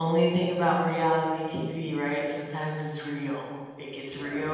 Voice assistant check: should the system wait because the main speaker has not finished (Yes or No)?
Yes